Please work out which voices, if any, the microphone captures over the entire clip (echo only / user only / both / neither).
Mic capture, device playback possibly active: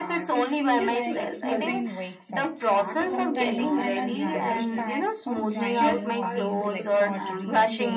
both